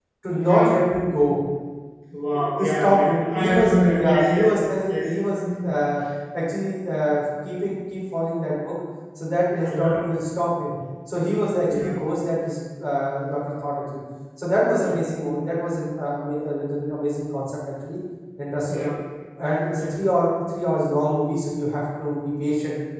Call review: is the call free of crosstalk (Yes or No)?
No